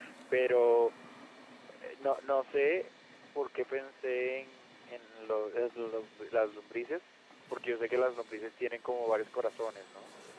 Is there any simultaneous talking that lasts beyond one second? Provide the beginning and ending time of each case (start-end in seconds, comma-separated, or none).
none